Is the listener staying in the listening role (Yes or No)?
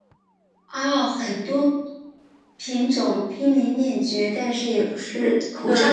No